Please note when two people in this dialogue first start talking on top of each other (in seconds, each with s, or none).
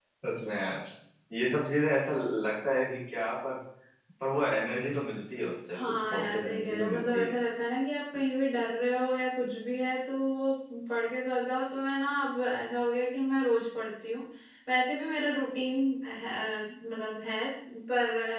5.7 s